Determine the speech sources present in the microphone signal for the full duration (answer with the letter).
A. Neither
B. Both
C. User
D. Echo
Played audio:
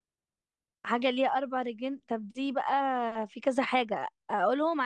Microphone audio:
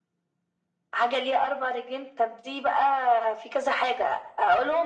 D